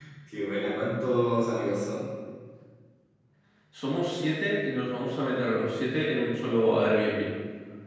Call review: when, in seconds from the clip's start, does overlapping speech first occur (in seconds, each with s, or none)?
none